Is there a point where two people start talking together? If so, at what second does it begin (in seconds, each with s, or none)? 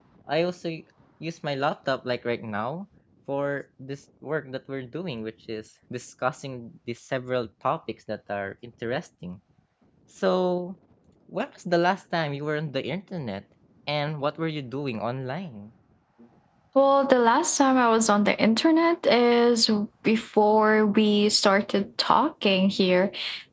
none